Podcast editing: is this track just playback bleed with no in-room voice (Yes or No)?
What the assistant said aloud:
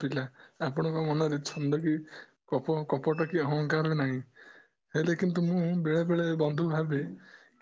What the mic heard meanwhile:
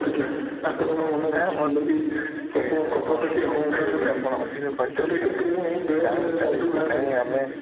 No